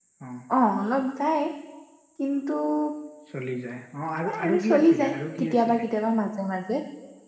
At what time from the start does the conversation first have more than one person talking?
4 s

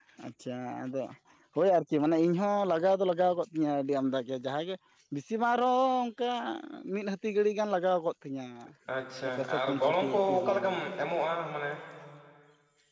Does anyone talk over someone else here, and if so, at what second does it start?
9 s

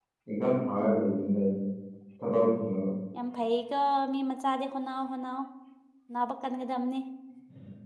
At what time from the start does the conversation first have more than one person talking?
none

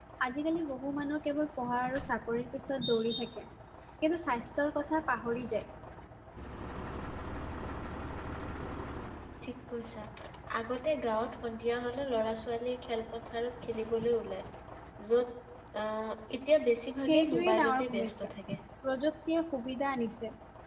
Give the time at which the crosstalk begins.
17 s

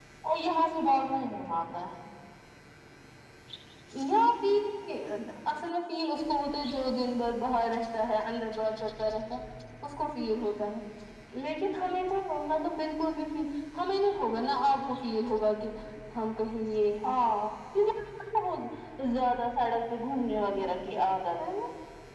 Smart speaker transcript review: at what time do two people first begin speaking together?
none

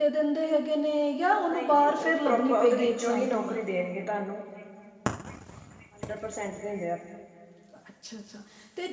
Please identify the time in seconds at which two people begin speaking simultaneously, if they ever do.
2 s

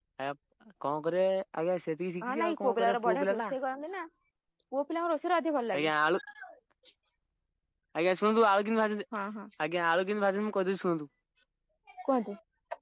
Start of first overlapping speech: 2 s

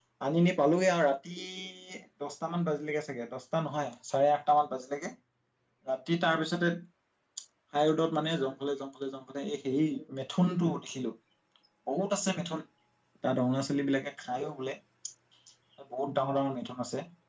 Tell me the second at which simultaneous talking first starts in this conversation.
none

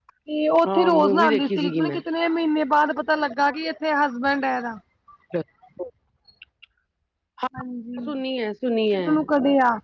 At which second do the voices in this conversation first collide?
1 s

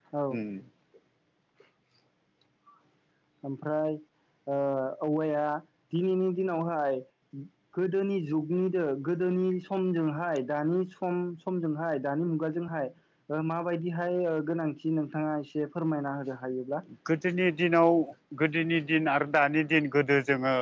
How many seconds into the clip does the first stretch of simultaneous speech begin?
none

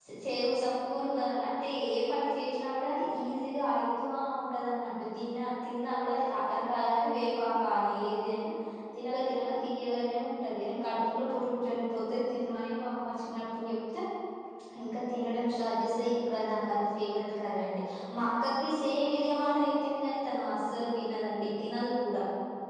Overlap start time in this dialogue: none

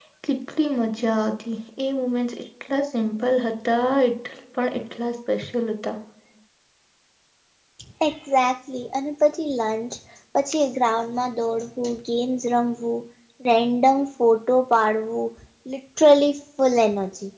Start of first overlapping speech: none

